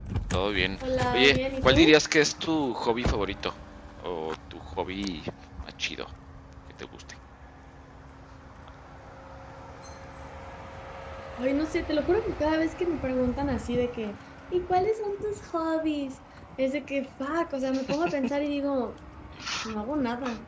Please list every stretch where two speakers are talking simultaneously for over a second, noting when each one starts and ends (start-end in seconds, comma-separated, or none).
0.8-2.0